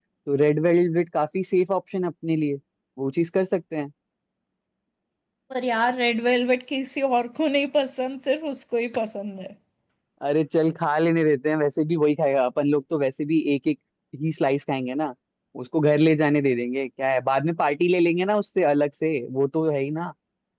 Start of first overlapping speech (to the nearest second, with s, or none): none